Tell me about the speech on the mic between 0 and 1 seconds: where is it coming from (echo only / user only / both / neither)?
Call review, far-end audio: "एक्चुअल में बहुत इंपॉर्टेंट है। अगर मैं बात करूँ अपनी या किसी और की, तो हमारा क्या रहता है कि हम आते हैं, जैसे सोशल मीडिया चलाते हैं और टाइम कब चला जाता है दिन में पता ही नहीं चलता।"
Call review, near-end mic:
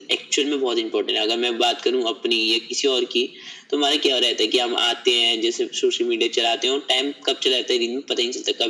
echo only